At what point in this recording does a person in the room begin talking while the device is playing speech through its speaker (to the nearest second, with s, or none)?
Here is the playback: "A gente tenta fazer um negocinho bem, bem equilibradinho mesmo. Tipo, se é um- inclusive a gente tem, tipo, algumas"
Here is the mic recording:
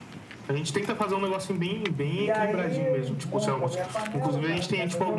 2 s